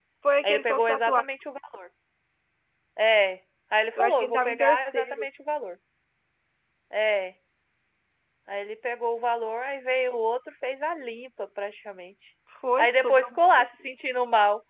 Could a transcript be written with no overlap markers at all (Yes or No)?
No